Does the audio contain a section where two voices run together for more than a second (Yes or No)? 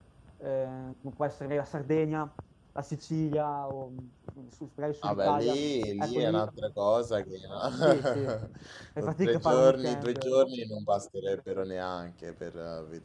Yes